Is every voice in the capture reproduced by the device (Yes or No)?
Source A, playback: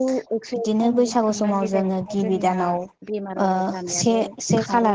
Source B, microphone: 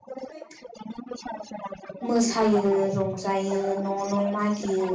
No